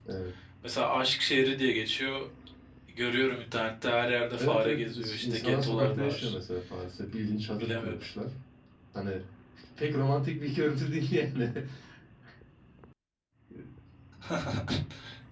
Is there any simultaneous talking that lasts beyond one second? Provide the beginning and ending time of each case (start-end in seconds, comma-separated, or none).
4.4-6.3